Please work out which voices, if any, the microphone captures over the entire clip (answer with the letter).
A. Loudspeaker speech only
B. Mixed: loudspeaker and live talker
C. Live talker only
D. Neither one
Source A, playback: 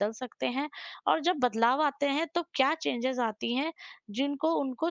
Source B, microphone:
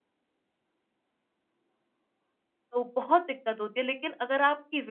C